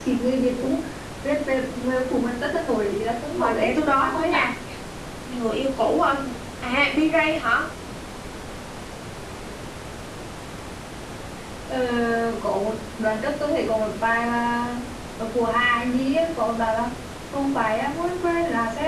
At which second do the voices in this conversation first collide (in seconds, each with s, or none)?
3.3 s